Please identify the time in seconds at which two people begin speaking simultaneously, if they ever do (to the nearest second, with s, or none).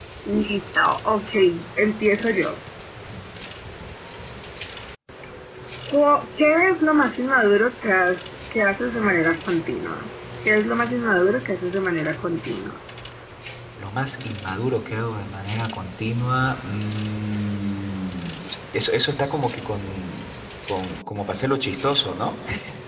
none